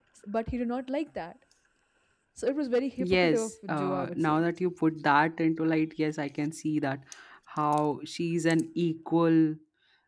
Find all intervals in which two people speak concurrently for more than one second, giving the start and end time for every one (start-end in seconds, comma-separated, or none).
3.0-4.4